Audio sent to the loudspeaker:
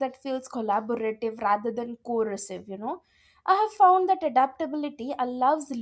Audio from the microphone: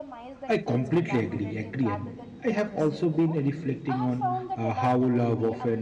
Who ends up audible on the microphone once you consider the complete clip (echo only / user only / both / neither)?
both